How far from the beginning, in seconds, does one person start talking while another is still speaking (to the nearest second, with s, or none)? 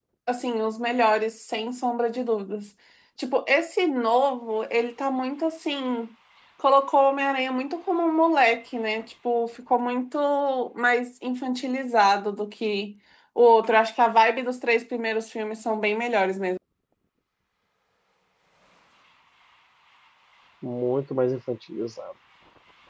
none